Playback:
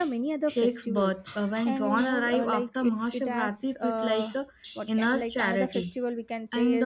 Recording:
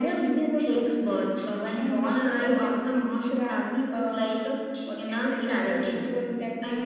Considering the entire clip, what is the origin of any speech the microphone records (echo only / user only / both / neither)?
echo only